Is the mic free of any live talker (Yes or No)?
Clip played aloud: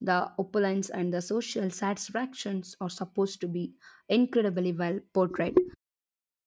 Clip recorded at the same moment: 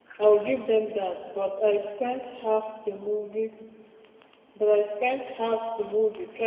No